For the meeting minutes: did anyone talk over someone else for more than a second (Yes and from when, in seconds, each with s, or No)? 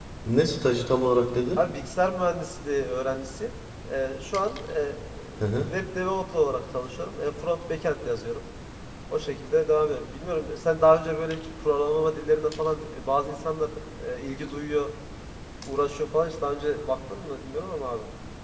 No